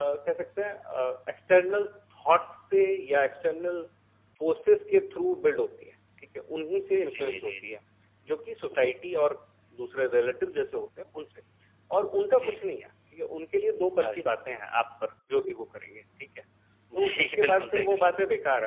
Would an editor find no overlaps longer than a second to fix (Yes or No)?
No